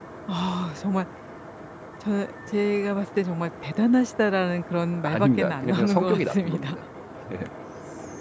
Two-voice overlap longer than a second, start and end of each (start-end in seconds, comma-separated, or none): 5.0-6.8